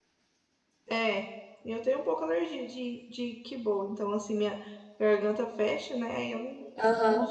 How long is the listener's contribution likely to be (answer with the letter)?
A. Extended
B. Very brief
A